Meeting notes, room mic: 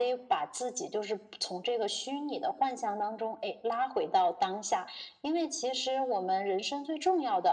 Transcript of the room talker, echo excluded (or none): none